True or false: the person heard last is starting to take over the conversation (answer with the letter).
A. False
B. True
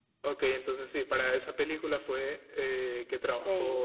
A